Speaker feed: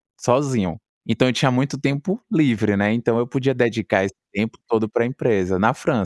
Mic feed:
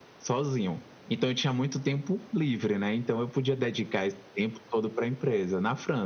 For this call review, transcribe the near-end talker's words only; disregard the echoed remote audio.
none

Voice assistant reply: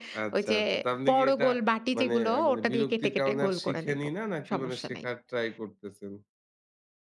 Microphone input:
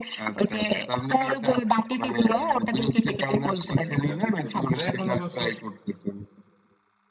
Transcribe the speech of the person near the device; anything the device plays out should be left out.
হ্যাঁ, হ্যাঁ, বুঝতে পেরেছি। না এখন অবশ্য

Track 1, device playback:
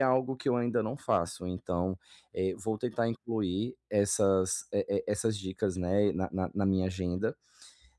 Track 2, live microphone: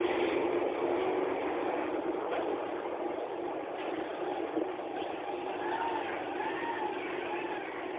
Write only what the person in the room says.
none

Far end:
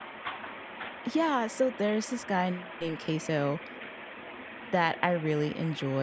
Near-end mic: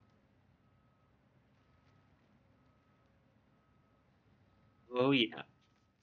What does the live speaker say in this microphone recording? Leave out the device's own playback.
Oh, yeah.

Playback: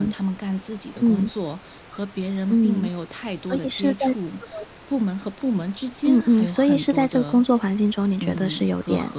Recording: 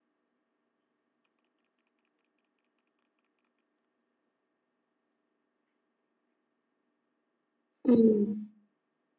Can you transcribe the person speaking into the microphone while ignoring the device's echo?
嗯。

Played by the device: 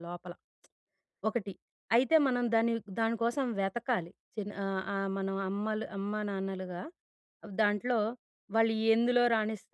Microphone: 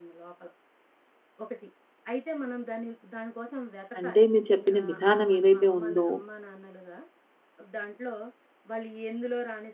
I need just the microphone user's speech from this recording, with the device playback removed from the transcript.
అంటే మీరు చెప్పిన విధానం ఏదైతే ఉందో

